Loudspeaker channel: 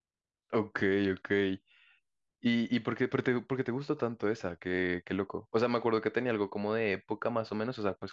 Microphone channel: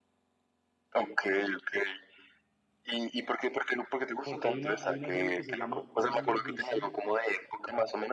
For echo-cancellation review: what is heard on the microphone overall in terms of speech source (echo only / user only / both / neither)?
both